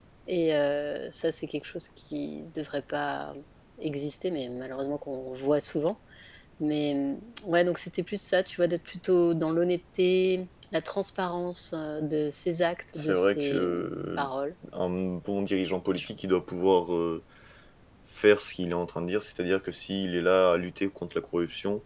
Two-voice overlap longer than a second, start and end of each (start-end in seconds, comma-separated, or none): 12.9-14.3